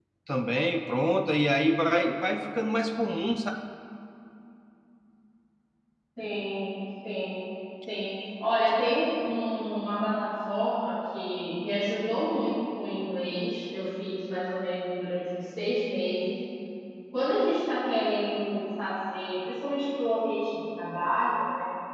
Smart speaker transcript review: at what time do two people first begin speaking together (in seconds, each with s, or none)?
none